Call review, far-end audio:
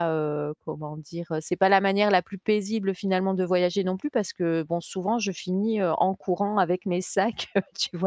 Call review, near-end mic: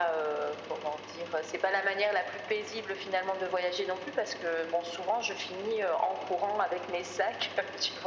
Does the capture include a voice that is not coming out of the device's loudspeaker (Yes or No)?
No